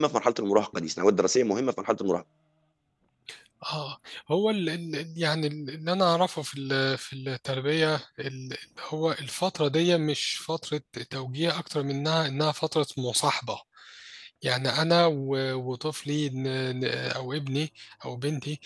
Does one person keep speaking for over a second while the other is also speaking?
No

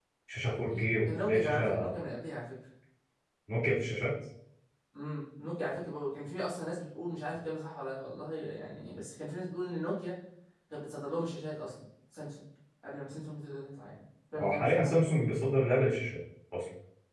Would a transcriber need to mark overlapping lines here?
Yes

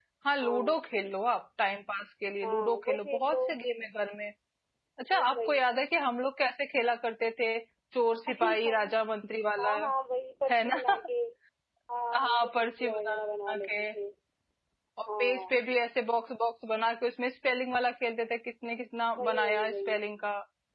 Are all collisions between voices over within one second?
No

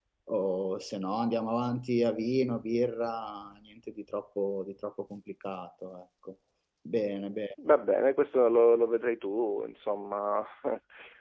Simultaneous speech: No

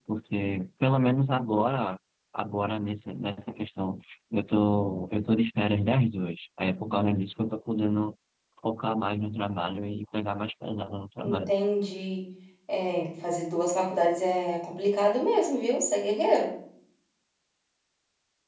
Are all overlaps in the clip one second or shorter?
Yes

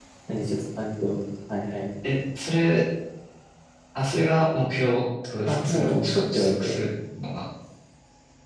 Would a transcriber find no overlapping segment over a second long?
No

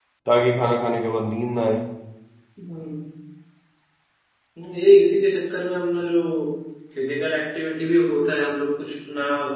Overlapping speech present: No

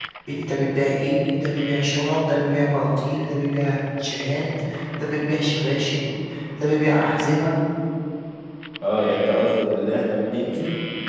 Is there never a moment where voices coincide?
Yes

